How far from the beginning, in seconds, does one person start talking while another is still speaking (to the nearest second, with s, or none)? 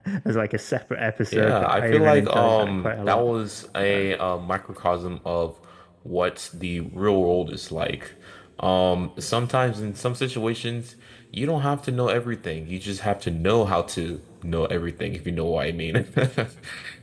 1 s